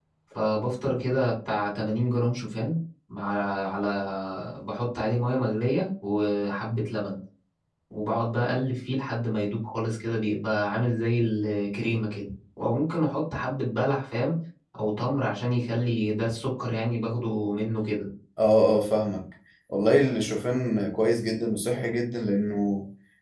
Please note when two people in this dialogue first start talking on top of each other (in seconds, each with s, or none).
none